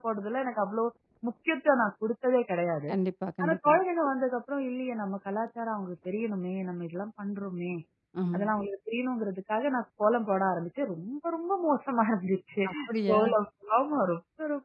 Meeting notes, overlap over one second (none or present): none